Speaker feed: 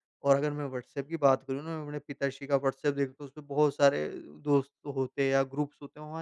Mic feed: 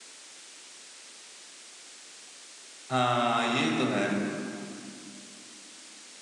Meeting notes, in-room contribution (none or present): present